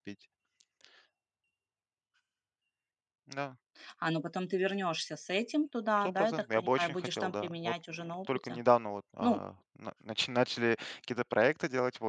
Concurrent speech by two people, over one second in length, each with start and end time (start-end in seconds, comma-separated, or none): 6.0-8.6